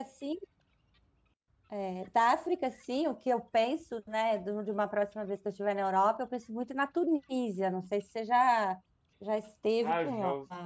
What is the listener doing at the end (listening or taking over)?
taking over